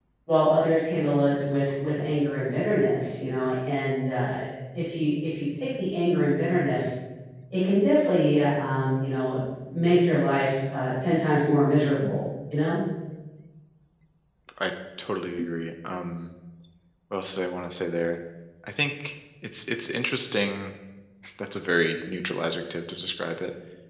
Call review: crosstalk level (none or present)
none